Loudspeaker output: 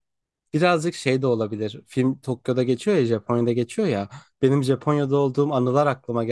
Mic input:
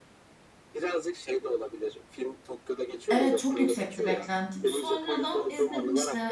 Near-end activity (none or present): present